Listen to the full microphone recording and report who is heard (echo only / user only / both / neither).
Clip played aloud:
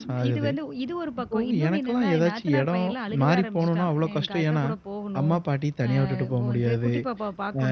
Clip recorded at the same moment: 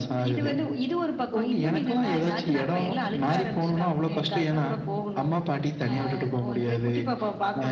echo only